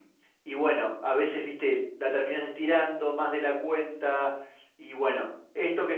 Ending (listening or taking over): listening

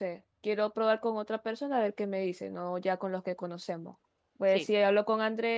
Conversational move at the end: listening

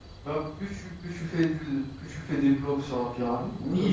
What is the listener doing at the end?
taking over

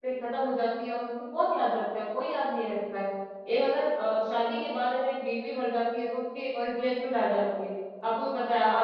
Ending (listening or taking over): taking over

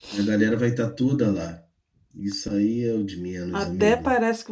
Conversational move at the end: taking over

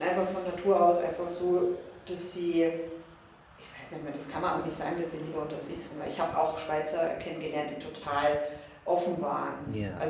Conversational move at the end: listening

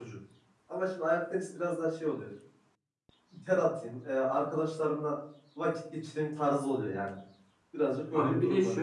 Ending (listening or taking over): taking over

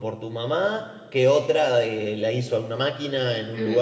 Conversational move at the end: listening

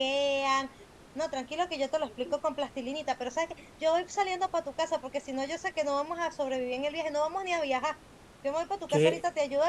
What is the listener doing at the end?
listening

